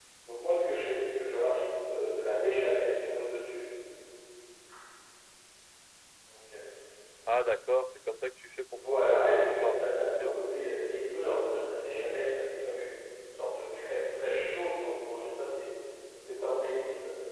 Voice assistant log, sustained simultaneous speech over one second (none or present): present